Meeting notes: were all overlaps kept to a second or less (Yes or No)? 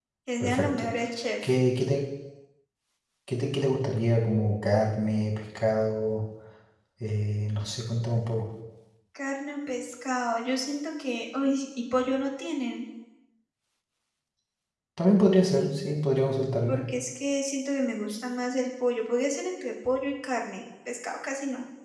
Yes